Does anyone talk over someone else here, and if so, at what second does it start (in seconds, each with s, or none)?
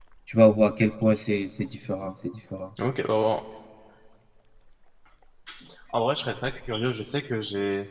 none